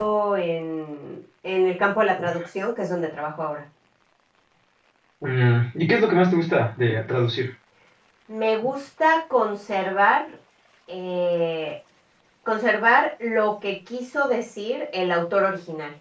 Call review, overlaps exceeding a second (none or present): none